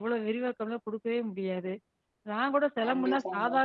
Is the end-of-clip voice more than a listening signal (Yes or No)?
No